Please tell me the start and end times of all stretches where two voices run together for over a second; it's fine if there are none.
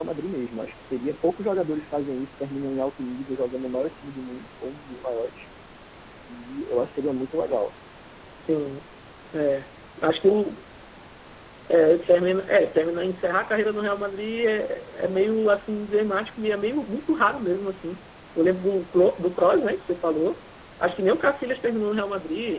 none

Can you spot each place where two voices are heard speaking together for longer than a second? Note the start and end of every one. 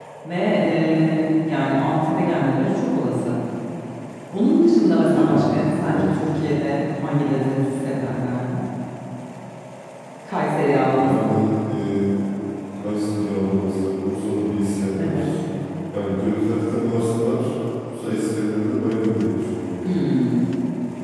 none

